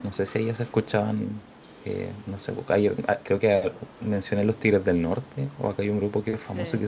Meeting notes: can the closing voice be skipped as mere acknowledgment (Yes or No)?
Yes